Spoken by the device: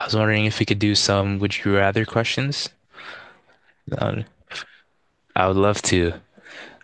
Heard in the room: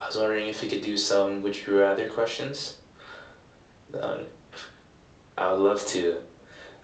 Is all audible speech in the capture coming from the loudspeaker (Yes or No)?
Yes